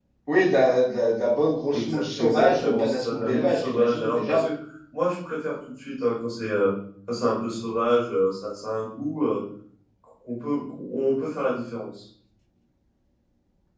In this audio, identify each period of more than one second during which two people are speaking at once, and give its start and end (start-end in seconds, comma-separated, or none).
1.7-4.5